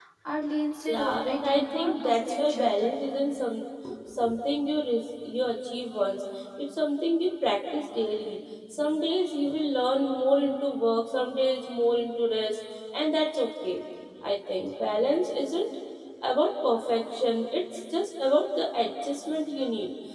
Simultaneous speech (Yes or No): Yes